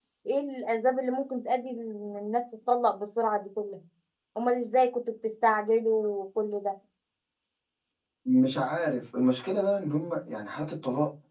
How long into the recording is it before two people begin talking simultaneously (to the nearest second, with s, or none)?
none